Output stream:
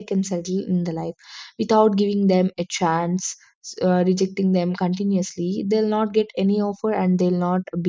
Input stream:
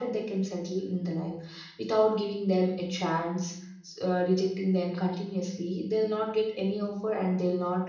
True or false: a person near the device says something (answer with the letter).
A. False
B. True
A